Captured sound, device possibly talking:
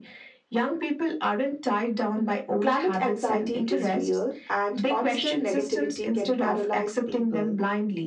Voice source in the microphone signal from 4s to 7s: both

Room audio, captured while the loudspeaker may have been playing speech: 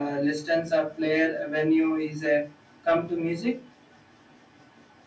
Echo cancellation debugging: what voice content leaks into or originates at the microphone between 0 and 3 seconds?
echo only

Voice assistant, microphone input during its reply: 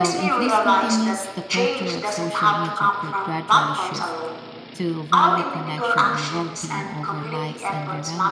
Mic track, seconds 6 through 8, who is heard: both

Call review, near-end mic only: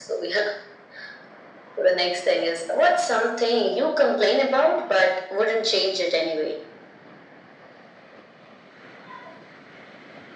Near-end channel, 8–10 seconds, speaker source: neither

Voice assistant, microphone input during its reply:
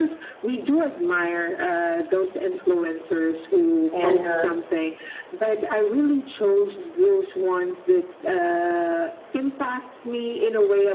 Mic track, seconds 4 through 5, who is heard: both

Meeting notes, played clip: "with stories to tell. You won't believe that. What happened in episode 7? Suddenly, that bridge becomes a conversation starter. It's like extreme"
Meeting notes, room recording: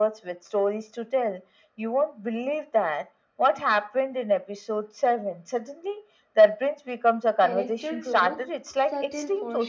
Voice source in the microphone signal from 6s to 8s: both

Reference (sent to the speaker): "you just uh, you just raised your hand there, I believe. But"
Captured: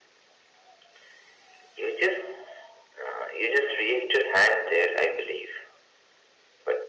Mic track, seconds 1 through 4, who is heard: echo only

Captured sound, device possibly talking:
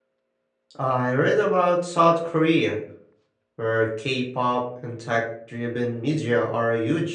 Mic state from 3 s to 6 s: user only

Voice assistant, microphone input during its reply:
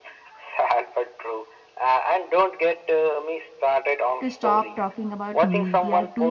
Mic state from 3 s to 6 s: both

